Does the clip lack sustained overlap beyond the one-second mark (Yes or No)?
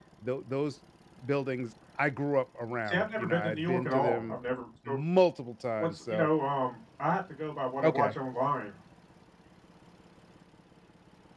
No